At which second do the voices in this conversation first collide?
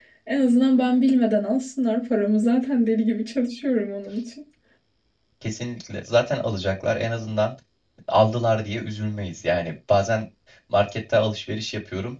none

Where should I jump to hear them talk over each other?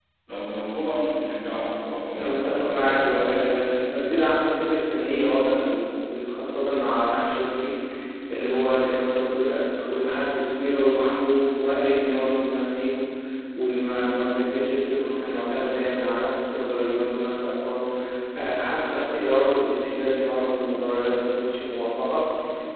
2.1 s

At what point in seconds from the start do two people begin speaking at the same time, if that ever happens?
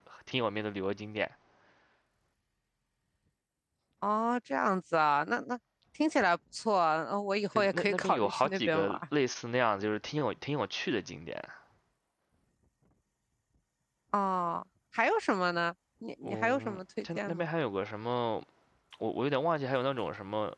7.6 s

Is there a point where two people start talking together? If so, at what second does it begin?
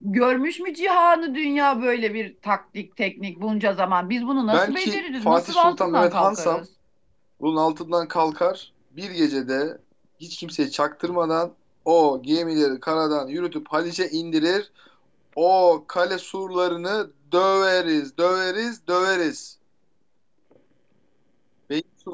4.5 s

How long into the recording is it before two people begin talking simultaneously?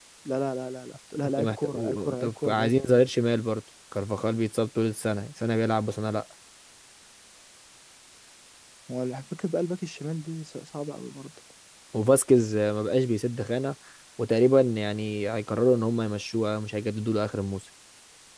1.4 s

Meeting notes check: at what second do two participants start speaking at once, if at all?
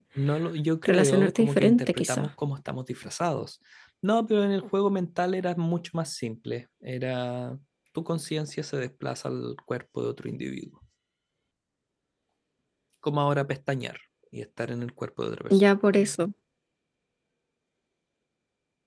0.8 s

